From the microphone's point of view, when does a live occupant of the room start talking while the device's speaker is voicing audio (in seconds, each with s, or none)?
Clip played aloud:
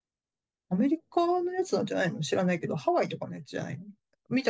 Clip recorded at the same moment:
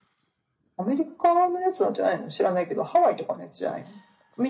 none